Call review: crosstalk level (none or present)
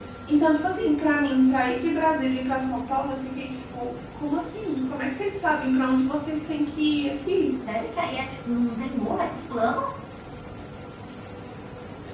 none